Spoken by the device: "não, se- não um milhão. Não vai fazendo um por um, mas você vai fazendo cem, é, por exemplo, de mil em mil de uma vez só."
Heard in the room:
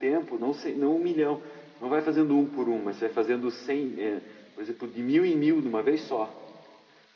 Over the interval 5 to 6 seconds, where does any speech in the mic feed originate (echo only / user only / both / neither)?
echo only